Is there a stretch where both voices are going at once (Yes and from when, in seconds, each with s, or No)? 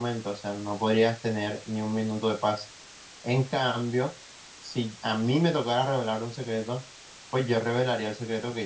No